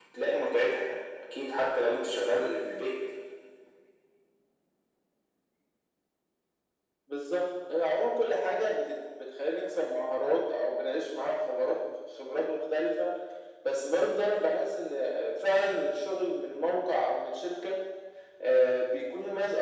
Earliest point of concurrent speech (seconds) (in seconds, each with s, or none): none